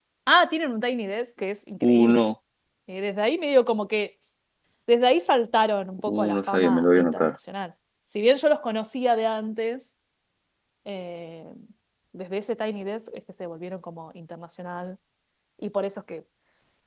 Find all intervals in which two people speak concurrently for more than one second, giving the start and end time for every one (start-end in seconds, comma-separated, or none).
6.1-7.3